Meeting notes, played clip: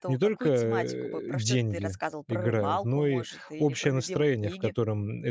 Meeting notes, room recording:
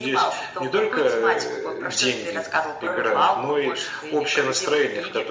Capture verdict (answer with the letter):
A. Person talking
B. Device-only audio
B